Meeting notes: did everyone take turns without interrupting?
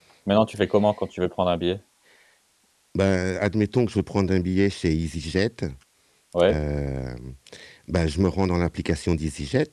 Yes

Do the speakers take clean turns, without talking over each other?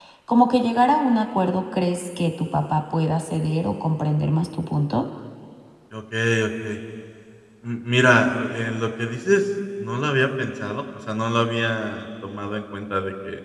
Yes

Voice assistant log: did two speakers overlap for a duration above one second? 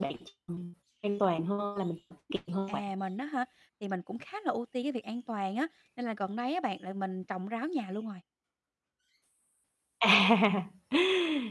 No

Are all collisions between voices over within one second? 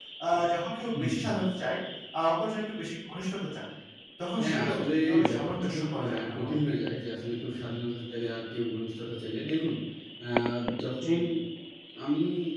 No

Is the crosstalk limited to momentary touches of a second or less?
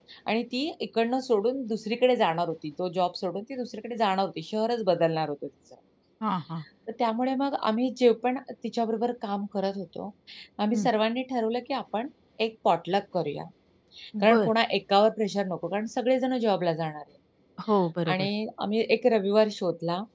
Yes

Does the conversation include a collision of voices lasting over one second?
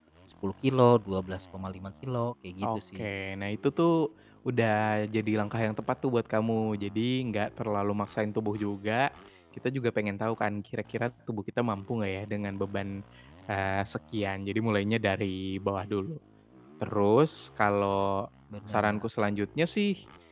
No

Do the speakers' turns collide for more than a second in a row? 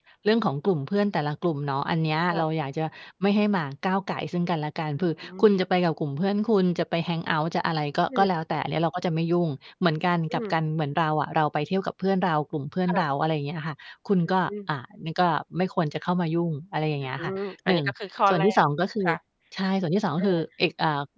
No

